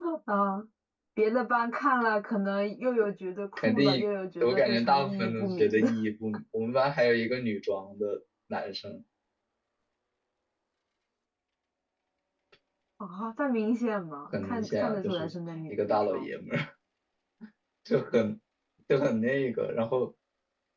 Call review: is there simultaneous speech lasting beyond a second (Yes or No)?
Yes